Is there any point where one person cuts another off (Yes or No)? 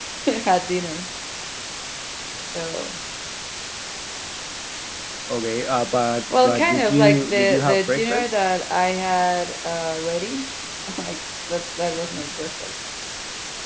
Yes